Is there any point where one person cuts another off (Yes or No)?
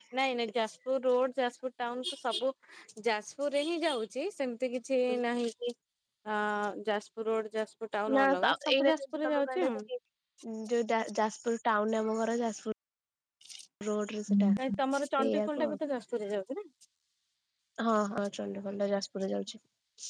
Yes